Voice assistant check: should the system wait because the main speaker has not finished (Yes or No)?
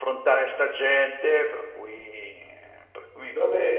No